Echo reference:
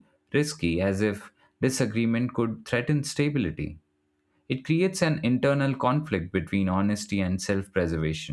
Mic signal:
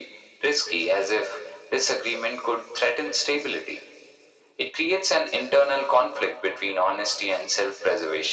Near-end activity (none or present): none